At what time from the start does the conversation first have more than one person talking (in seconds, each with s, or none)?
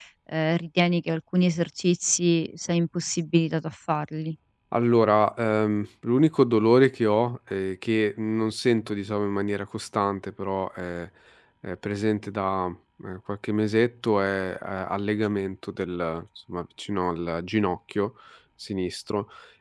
none